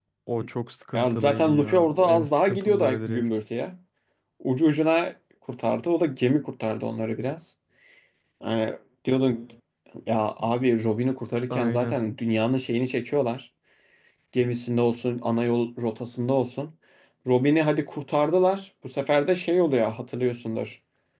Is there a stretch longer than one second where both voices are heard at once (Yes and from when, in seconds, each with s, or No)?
Yes, from 0.9 s